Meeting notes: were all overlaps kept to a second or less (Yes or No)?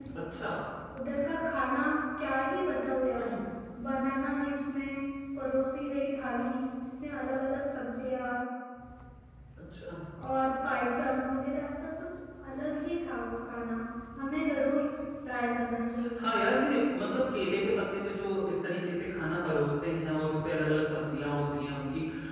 Yes